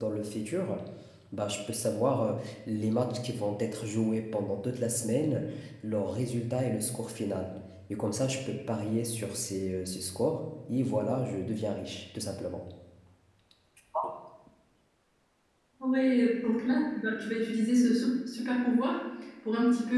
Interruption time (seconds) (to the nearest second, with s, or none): none